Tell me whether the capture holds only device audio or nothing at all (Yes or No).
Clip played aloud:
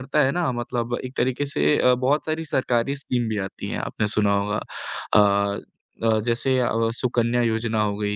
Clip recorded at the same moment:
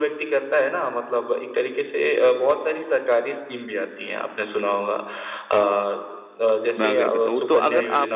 No